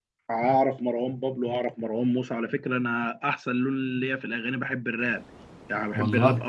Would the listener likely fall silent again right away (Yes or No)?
Yes